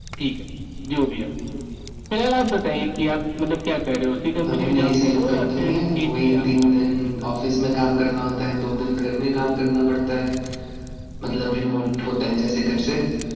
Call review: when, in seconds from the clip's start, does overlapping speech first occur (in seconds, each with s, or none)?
4.4 s